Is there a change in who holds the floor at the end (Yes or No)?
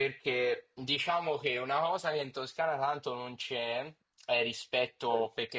No